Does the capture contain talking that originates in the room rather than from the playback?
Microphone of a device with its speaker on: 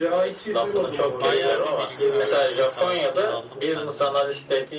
Yes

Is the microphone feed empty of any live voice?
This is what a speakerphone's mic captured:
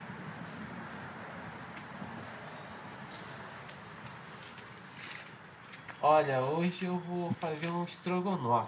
No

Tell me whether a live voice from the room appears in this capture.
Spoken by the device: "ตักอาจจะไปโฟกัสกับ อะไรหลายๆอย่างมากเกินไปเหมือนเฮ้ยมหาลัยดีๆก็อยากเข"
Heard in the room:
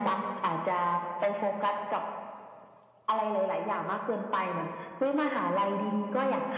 No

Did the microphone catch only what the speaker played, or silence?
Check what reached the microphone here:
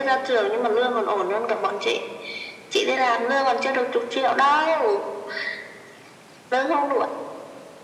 Yes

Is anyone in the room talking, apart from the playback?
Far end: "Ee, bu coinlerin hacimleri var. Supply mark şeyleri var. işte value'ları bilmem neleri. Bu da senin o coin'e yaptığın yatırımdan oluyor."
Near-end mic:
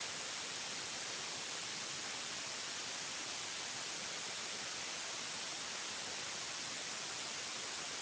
No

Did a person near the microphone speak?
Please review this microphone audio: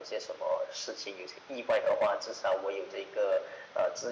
No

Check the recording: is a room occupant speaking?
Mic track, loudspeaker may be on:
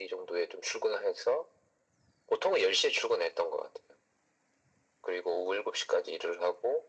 No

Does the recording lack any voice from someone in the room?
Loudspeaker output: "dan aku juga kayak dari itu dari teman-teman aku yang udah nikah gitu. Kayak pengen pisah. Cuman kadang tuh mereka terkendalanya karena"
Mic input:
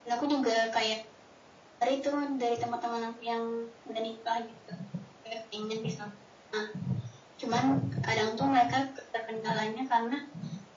Yes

